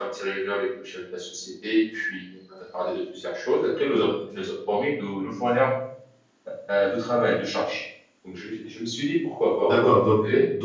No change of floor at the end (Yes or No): No